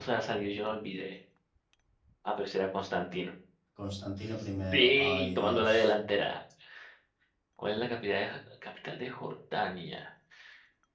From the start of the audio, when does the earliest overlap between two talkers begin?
4.7 s

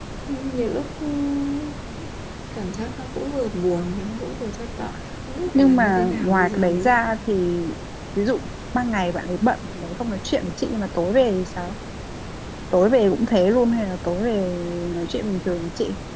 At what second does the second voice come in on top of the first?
5.5 s

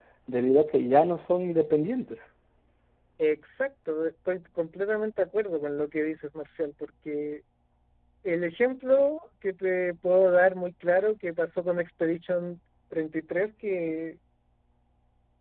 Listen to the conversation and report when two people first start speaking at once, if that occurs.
none

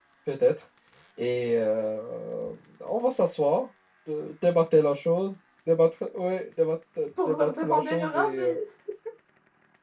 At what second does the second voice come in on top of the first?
7.3 s

